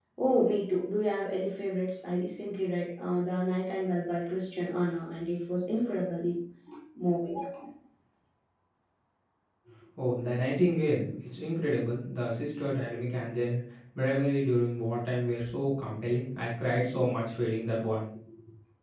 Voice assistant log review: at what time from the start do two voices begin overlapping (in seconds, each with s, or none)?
none